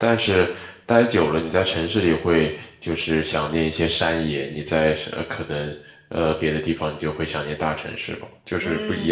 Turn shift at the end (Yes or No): Yes